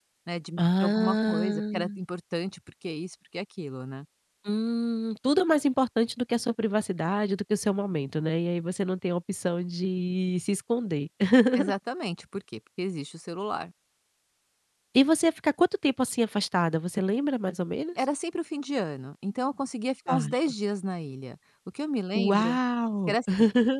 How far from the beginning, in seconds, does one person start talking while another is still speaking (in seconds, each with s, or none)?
0.6 s